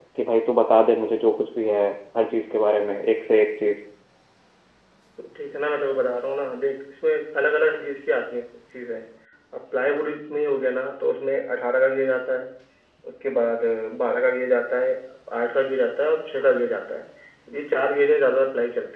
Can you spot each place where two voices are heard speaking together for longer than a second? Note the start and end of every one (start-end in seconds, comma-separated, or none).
none